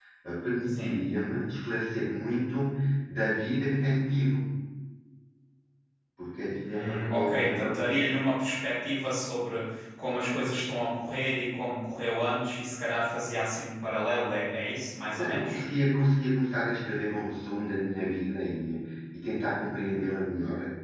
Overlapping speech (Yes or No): Yes